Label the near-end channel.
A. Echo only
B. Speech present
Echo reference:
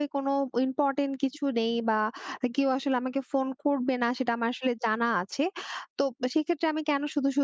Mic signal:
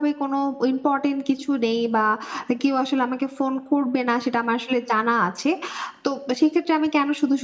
A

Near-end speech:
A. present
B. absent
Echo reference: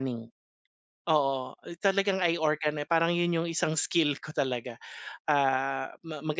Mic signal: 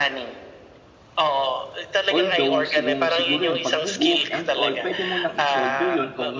A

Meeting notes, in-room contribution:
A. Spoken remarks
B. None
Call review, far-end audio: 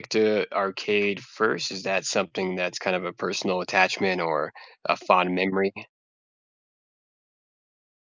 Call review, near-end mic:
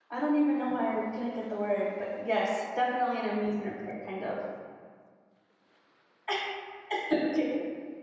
A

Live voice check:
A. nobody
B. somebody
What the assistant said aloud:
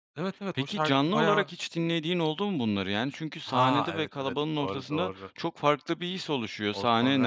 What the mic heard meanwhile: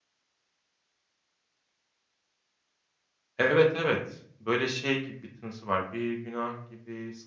B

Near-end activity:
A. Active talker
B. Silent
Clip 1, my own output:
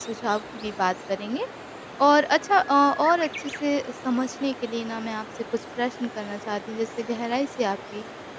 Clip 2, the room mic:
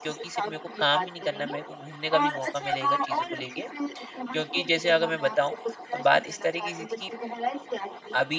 A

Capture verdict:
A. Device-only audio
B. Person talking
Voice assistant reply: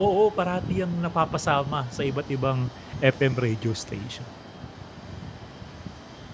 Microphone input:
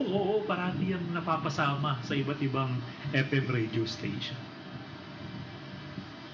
A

